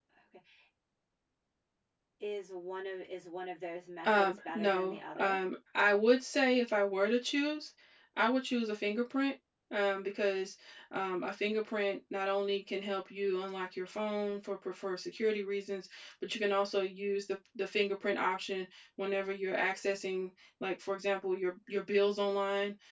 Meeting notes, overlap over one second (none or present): present